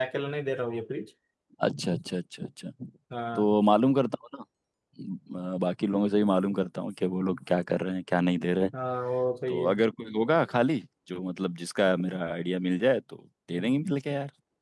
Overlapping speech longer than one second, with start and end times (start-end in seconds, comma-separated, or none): none